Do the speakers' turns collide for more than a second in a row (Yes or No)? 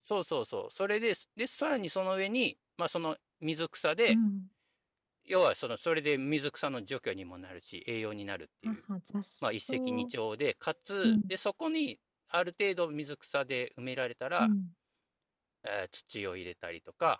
No